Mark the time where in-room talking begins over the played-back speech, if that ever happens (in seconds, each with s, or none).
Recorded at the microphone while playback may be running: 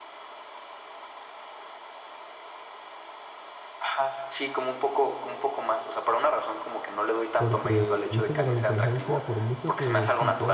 7.4 s